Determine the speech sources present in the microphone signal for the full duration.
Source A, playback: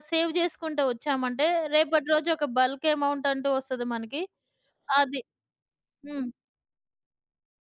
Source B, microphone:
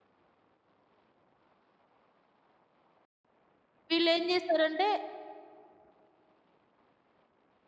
user only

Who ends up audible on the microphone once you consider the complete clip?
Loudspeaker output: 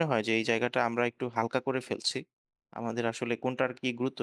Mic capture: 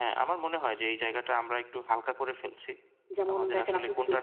both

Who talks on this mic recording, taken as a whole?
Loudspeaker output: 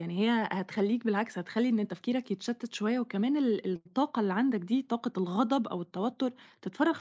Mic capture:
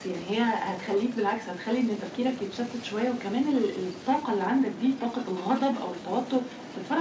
echo only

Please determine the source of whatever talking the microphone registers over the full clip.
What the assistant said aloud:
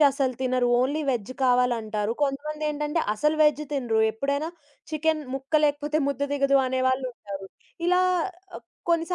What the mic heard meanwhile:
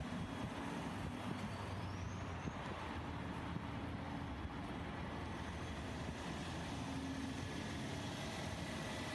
neither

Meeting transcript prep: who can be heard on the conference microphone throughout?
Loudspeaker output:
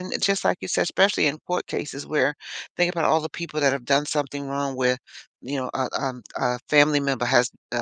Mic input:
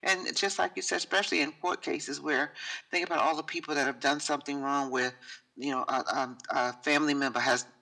echo only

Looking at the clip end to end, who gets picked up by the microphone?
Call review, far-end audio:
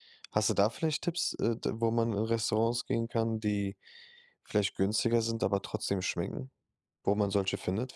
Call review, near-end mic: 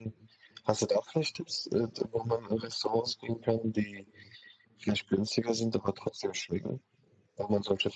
echo only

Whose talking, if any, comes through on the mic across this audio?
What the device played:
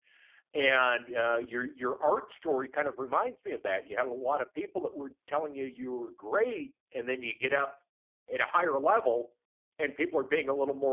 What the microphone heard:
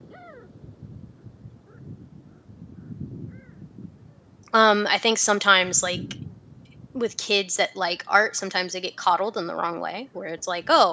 user only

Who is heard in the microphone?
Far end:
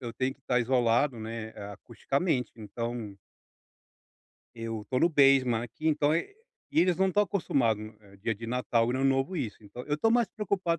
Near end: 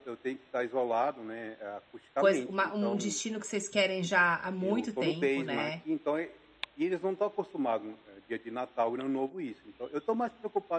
both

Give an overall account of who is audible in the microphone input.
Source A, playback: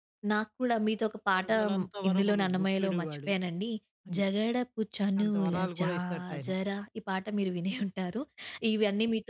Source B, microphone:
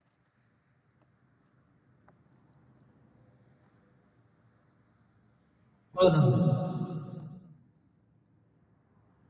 user only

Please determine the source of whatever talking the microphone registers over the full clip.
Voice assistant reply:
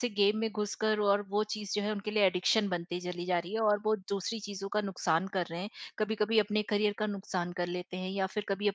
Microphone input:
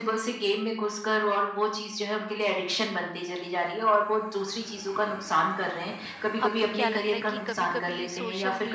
both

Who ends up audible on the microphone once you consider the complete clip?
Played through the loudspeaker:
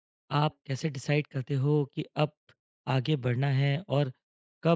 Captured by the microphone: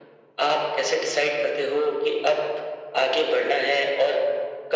echo only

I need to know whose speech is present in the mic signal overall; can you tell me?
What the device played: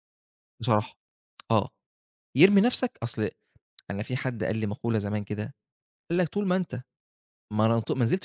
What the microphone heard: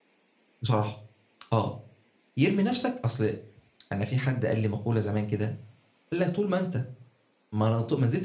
echo only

